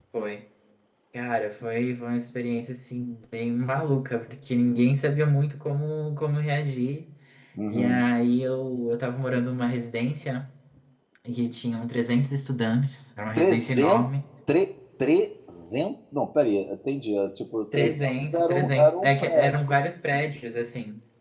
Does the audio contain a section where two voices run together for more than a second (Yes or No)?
Yes